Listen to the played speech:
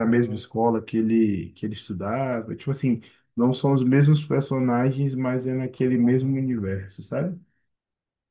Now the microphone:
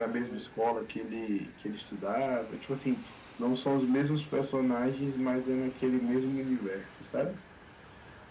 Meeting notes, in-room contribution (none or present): none